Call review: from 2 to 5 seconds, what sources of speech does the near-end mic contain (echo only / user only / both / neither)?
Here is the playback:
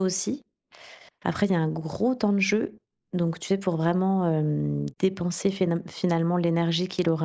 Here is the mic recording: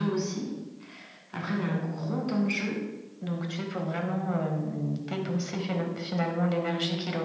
echo only